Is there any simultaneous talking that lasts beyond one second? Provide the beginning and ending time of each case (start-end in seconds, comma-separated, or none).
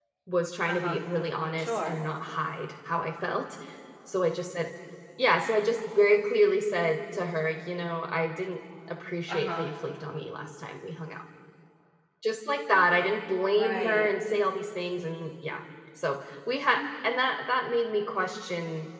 none